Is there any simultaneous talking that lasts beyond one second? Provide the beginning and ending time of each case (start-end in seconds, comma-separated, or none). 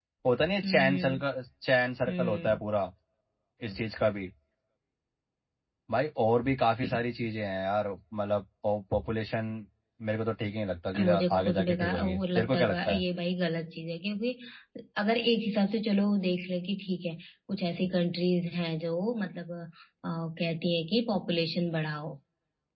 11.0-13.0